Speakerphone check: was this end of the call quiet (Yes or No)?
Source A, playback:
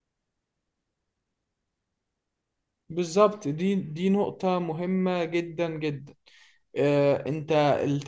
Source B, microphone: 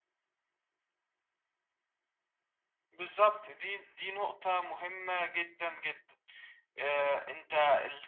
Yes